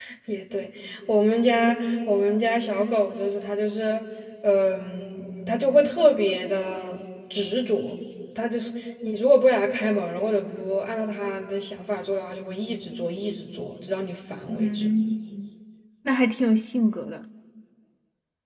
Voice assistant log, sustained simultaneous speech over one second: none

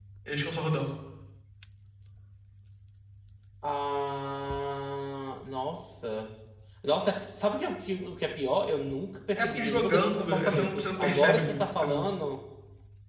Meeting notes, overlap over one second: present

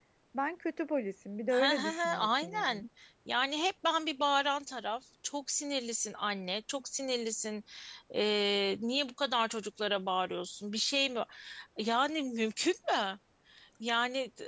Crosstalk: present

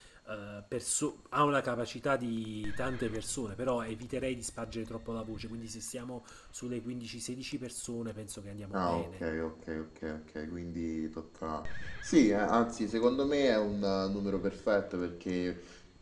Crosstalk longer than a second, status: none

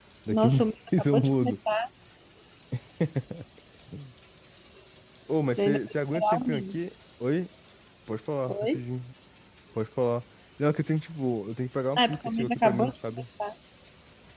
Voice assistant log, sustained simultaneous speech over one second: present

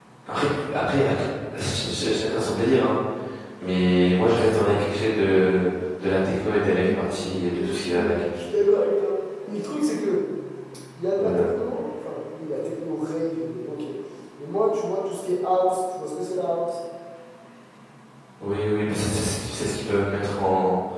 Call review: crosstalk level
present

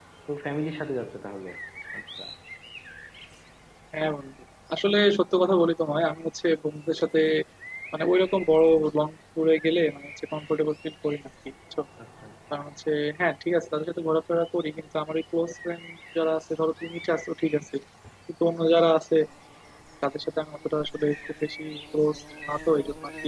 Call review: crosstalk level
none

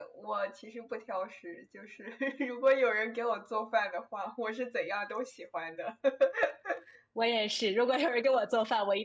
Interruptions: none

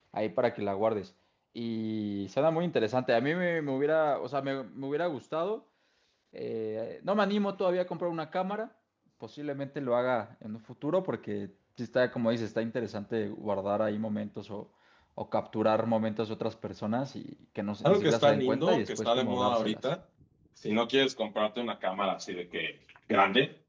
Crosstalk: present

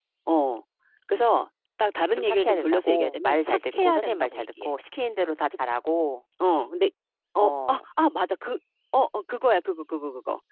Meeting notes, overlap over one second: present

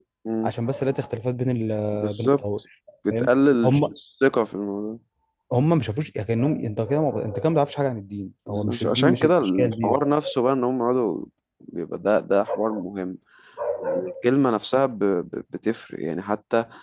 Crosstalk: present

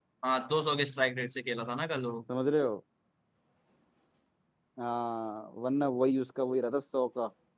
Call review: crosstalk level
none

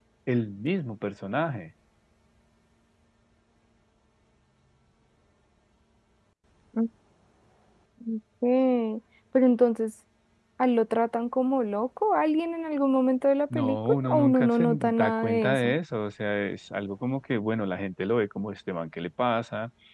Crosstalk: present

